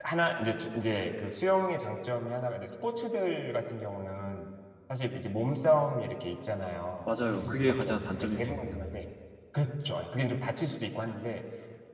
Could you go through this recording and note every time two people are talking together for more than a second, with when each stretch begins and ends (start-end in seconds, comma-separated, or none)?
7.1-9.0